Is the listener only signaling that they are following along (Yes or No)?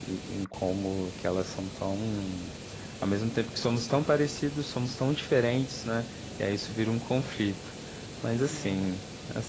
Yes